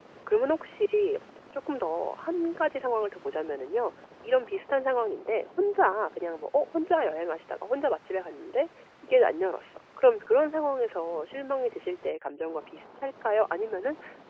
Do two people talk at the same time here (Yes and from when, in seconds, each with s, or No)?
No